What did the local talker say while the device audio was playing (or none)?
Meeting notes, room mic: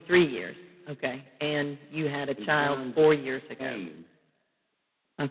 in terms shame